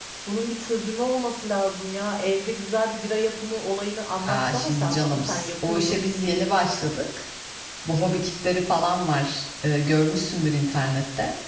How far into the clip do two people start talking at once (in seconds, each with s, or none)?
4.2 s